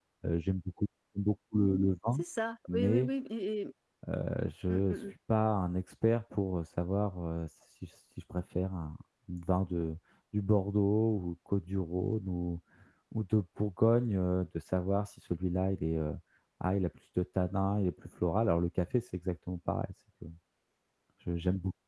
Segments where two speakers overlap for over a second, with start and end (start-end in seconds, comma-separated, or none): none